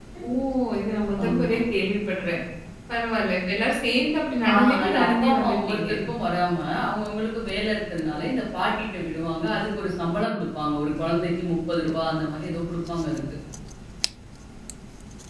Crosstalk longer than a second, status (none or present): present